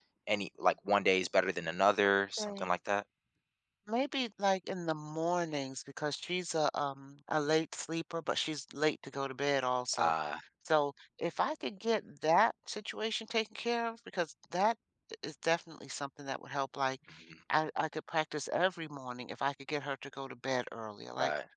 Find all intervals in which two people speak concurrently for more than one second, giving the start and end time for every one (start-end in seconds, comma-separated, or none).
none